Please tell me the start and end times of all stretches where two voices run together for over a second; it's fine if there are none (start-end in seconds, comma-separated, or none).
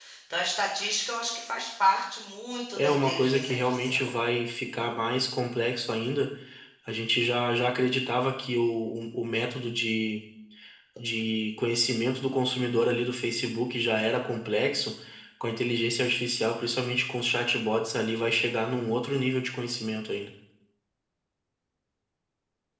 2.8-4.1